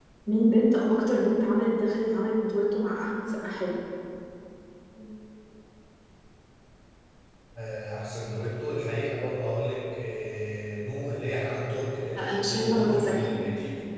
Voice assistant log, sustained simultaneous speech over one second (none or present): present